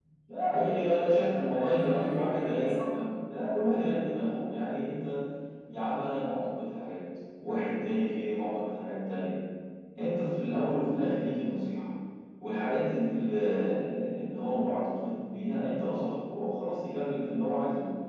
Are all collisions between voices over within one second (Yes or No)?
No